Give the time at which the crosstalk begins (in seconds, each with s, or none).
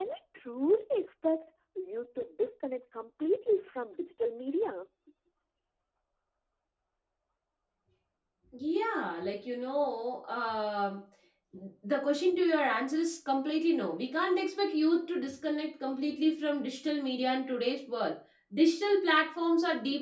none